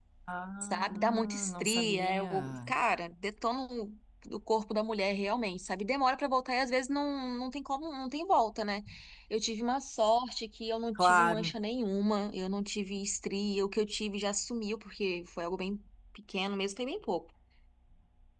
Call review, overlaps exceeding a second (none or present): present